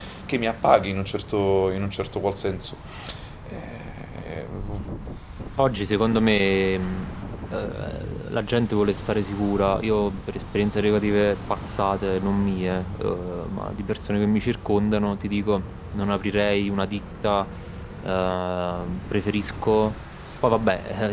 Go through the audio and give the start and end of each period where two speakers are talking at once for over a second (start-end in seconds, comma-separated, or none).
none